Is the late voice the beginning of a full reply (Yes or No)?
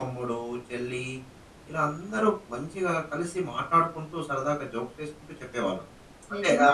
Yes